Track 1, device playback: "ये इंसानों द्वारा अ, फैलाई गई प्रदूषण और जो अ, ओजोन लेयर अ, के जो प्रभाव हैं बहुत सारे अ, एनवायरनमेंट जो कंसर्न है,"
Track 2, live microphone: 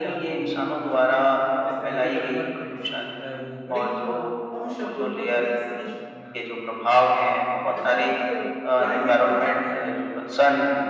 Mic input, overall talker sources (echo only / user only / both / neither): both